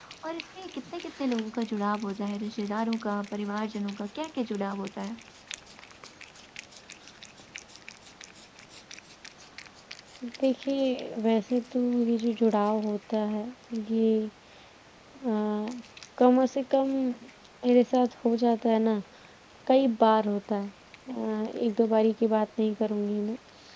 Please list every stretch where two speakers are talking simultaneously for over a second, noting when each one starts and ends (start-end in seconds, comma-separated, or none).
none